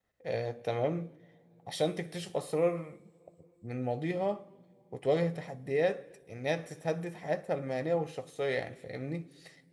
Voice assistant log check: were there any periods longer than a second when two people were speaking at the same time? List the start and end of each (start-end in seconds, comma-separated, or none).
none